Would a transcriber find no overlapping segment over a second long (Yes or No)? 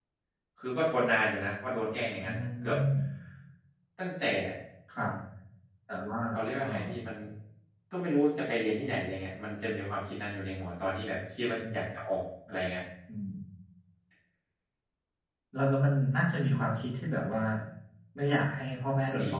Yes